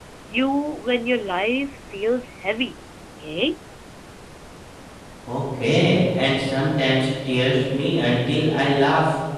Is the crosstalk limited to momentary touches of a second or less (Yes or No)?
Yes